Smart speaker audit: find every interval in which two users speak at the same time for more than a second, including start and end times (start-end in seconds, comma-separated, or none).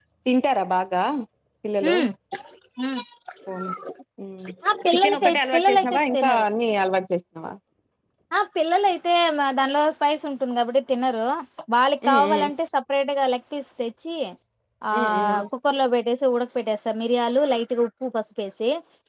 4.9-6.5